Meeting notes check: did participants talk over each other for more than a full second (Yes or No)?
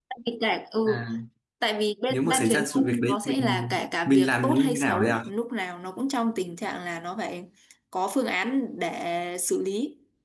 Yes